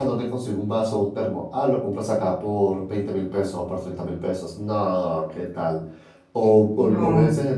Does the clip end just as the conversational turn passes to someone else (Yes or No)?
No